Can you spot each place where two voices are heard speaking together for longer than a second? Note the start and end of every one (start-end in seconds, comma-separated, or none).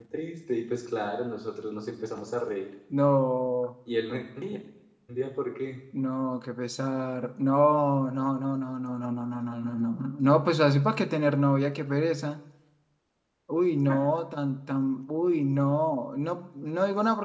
none